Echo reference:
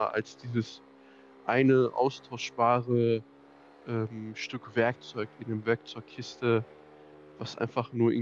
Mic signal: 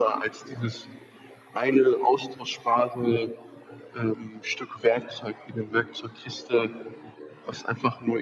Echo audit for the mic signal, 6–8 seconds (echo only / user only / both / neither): echo only